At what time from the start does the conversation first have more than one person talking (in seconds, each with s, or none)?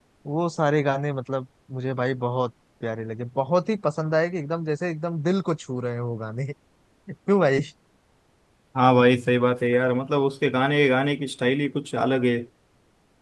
none